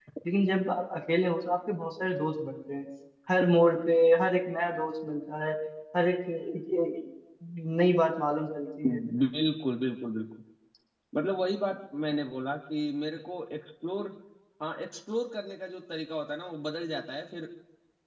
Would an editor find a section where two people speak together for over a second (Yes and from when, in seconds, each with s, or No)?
No